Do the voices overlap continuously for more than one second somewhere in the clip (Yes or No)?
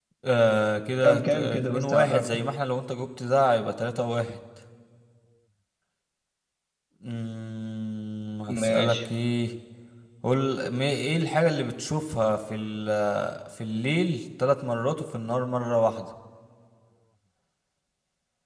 Yes